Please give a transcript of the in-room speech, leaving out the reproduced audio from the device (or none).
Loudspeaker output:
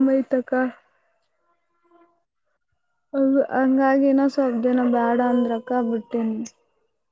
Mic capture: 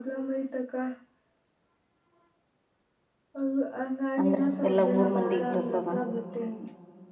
ಅಂದ್ರೆ ಎಲ್ಲಾ ಊರ್ ಮಂದಿ ಪ್ರಸಾದ